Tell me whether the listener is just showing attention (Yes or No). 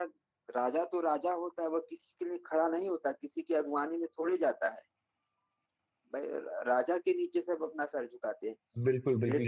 No